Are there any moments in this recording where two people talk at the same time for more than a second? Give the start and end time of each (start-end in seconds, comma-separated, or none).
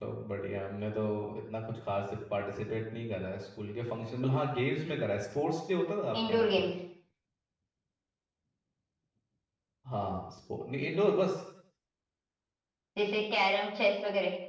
none